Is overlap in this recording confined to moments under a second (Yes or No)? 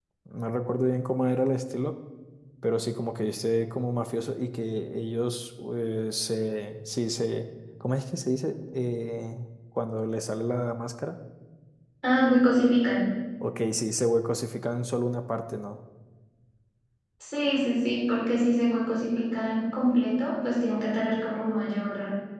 Yes